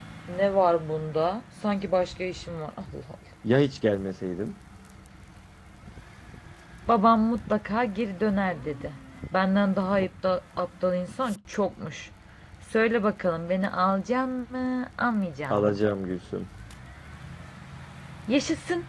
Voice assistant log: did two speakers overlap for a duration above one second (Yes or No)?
No